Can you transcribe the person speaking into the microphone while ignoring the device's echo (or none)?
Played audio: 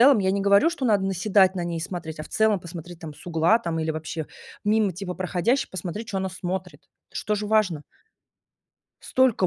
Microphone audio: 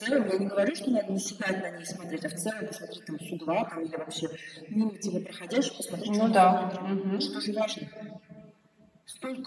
Ну да. Мгм.